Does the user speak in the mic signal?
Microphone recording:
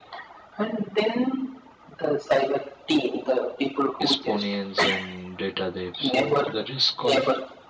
Yes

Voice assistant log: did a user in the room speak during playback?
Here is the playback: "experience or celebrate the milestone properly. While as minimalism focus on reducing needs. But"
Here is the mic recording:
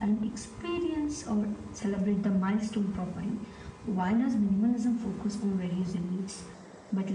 No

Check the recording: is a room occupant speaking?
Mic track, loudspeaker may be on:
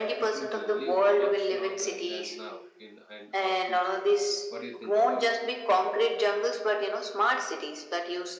Yes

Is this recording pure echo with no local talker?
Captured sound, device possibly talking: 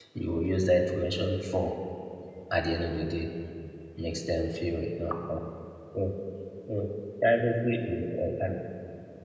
No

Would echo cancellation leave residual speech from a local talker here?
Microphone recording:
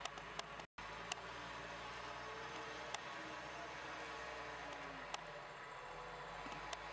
No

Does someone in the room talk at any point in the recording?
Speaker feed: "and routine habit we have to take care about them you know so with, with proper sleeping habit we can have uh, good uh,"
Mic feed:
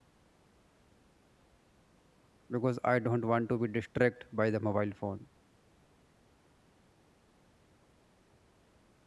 Yes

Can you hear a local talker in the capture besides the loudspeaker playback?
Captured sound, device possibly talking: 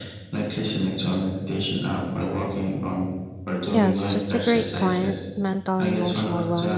Yes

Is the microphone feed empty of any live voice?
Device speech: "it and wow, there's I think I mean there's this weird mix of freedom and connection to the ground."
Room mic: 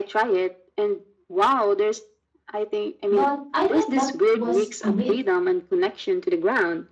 No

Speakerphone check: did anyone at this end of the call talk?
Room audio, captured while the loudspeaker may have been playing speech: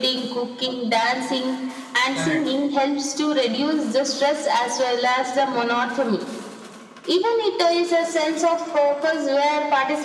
Yes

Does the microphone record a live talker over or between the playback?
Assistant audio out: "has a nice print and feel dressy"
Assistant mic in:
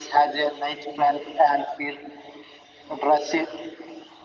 No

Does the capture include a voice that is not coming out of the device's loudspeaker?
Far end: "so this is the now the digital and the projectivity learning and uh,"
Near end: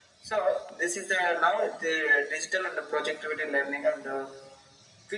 No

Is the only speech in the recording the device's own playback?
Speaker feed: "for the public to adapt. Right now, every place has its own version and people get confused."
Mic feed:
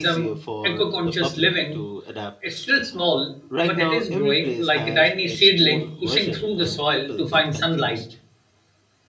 No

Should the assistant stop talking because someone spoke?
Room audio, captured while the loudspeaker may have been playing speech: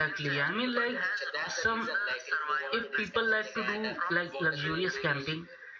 Yes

